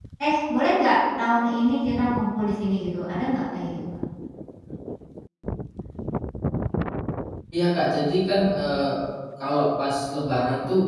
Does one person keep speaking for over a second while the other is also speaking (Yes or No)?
No